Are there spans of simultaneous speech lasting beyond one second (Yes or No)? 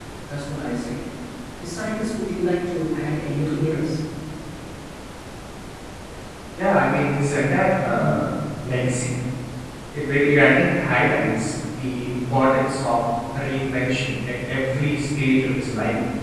No